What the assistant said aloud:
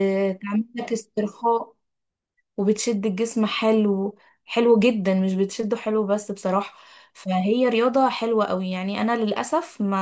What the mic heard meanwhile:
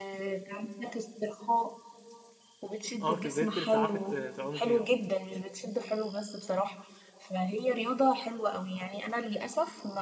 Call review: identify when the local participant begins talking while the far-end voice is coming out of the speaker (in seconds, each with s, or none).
3.0 s